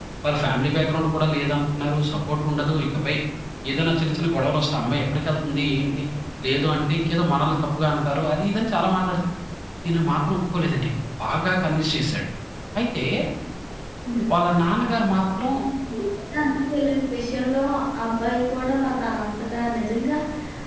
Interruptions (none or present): none